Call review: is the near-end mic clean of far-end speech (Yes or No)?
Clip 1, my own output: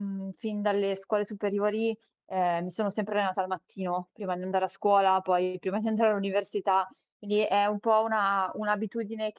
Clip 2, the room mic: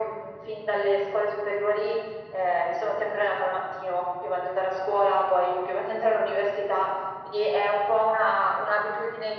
No